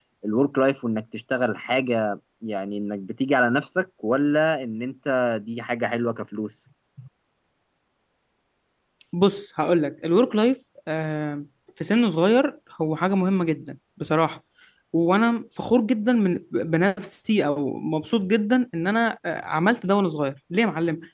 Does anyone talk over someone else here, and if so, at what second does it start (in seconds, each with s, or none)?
none